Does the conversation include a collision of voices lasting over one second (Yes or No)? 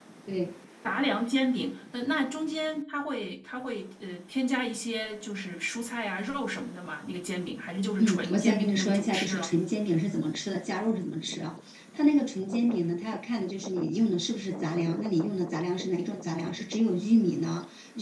Yes